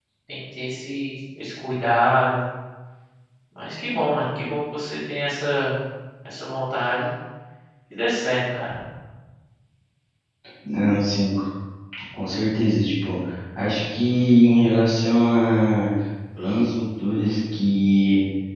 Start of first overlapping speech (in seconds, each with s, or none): none